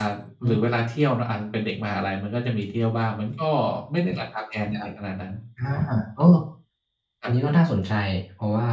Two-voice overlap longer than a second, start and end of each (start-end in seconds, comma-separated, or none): none